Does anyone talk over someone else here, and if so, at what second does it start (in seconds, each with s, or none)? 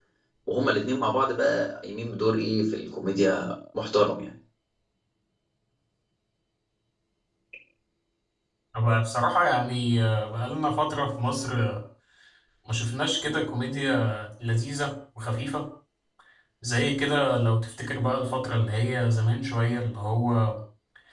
none